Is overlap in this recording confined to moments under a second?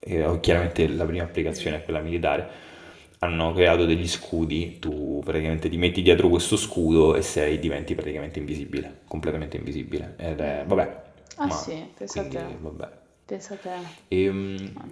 Yes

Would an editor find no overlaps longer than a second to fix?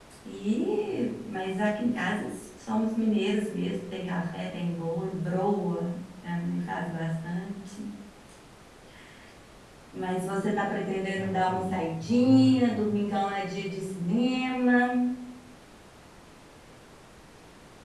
No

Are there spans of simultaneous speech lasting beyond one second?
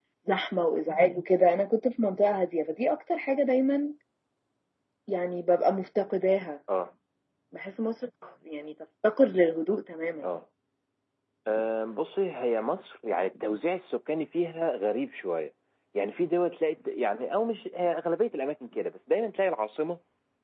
No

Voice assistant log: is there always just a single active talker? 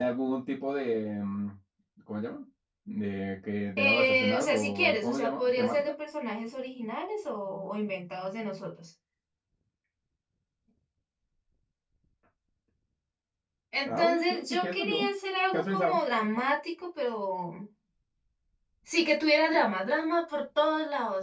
No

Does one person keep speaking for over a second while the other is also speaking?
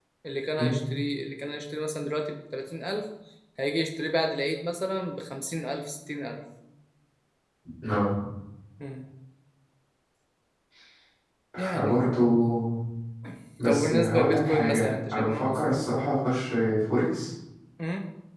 Yes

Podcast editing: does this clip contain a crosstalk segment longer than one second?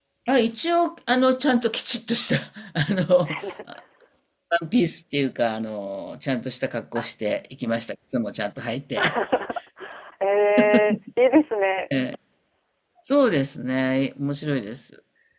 No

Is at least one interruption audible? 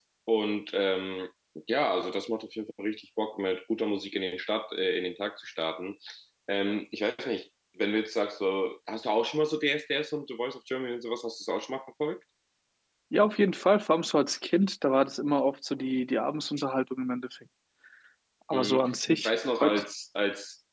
Yes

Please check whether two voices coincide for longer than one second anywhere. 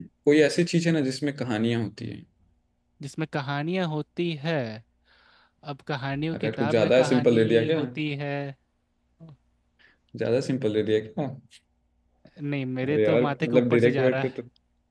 Yes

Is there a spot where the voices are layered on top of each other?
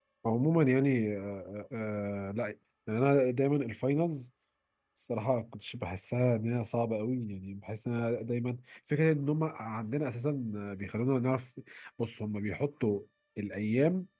No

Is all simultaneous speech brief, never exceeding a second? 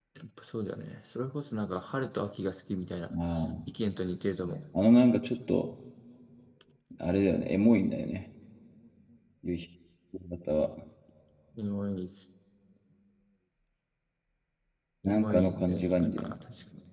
No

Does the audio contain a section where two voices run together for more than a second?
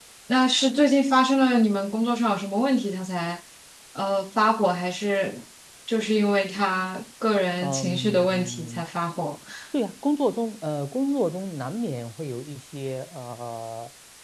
Yes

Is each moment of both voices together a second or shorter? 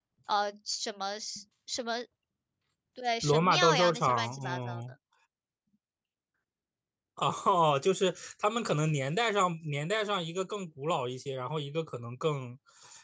No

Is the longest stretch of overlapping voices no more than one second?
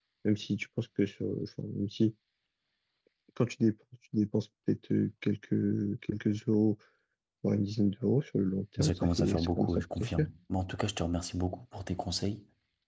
No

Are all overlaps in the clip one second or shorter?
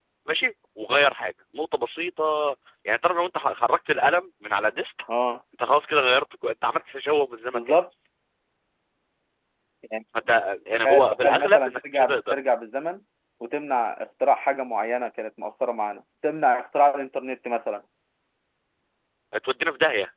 No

